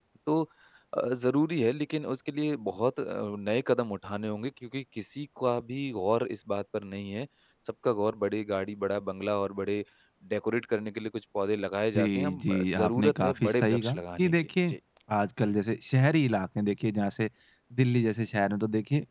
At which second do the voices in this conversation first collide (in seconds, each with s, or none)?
11.9 s